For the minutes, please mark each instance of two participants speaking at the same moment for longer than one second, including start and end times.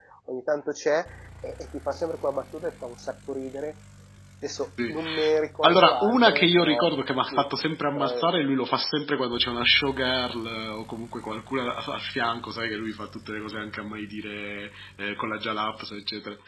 5.6-6.8

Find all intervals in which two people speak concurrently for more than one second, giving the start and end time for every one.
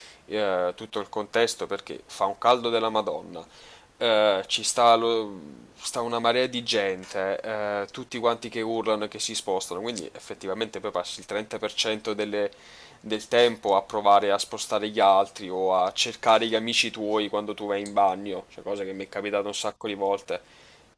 none

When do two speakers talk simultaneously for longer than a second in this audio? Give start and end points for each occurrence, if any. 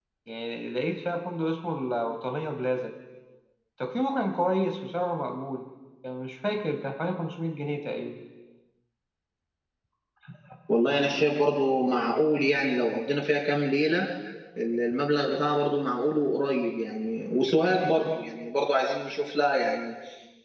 none

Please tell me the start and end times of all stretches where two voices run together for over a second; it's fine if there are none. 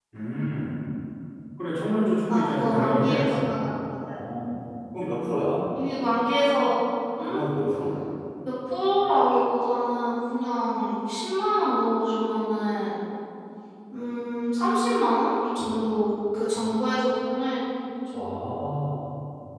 2.3-3.6

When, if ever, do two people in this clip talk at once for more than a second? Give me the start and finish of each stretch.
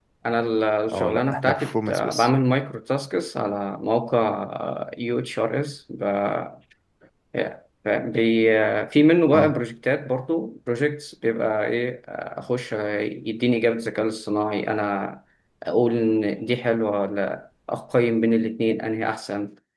0.9-2.3

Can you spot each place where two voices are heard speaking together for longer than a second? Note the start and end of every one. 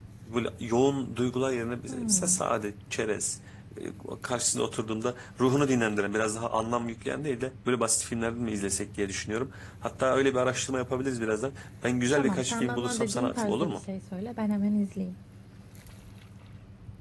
12.2-13.8

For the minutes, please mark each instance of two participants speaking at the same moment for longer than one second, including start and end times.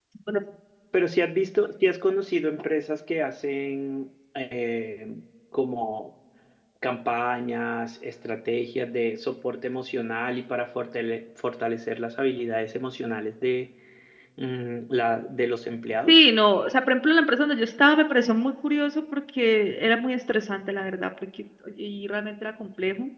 none

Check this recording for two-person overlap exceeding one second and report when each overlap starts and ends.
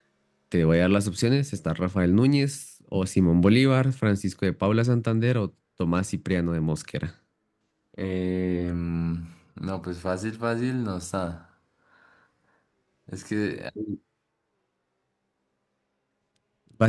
none

